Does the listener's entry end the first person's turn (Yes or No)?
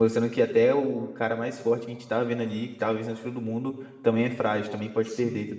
Yes